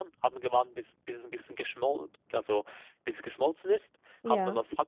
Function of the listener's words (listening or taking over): listening